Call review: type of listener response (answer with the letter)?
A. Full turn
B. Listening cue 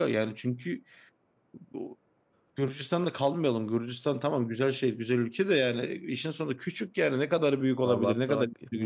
A